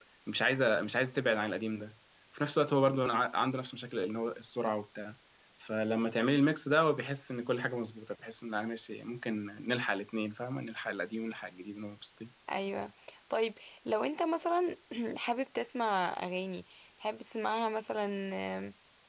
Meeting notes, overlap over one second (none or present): none